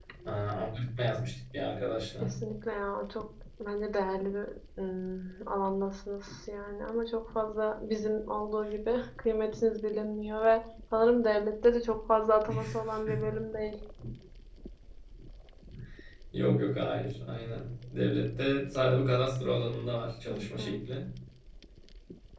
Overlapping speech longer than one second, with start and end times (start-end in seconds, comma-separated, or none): none